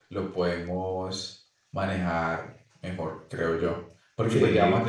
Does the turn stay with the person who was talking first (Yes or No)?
Yes